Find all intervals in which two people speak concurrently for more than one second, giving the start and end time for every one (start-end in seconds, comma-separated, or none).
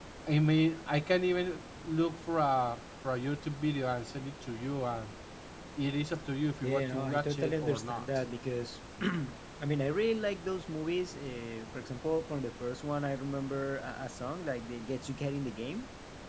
6.6-8.0